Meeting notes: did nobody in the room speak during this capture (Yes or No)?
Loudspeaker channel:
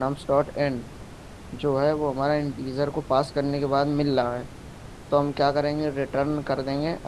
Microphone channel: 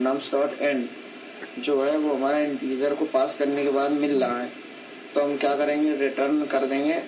Yes